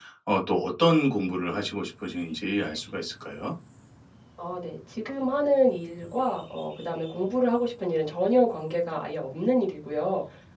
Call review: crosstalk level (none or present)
none